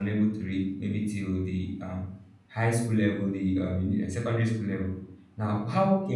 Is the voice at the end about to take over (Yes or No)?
No